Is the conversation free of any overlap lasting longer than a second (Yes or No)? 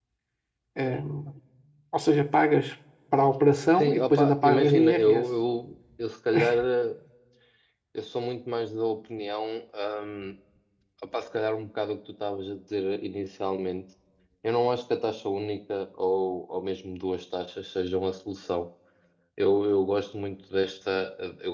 No